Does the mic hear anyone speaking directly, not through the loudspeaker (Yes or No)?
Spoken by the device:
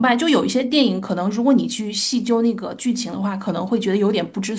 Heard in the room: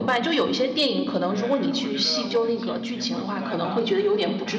Yes